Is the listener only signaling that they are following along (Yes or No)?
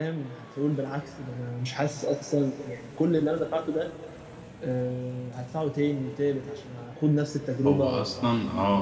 No